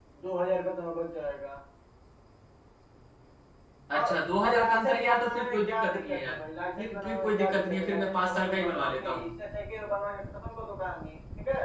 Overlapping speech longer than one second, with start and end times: 4.0-6.3, 6.8-9.2

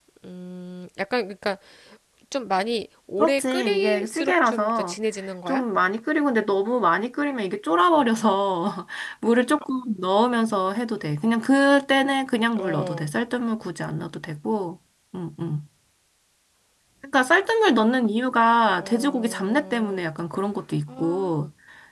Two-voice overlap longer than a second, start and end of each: 3.2-5.0, 18.8-20.1

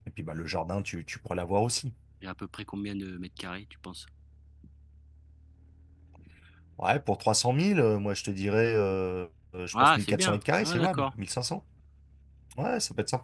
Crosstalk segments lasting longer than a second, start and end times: 9.8-11.1

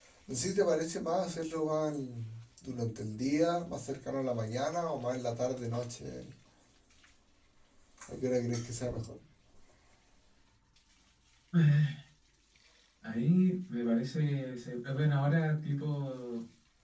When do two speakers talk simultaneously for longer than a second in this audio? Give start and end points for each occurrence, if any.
none

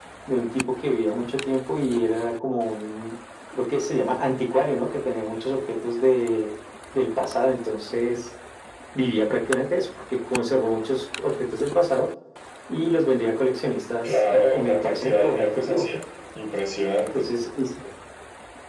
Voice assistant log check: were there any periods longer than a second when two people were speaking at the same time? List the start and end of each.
14.0-15.8

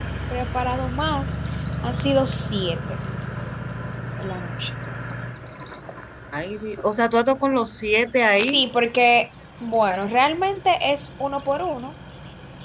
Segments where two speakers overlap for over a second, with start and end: none

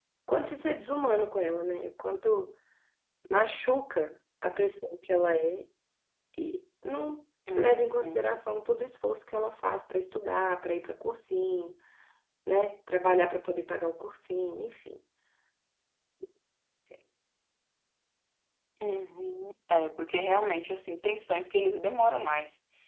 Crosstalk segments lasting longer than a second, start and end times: none

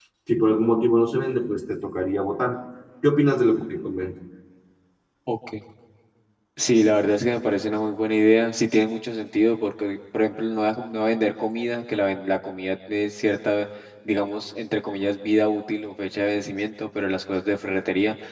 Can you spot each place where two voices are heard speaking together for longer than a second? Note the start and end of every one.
none

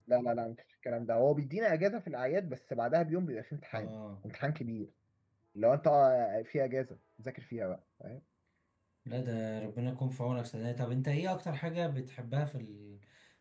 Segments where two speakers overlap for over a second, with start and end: none

